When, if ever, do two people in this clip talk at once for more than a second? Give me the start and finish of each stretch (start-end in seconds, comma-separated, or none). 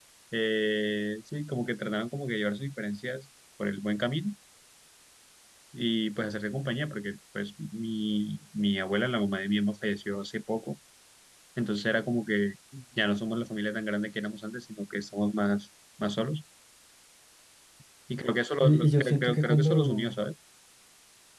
18.6-20.2